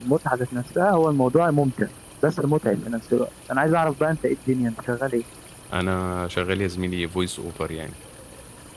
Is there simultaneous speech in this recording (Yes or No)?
No